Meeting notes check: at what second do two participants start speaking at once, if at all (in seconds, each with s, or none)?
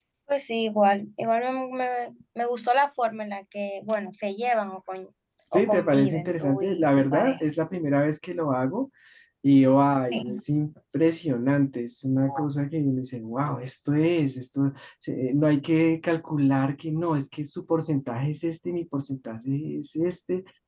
5.5 s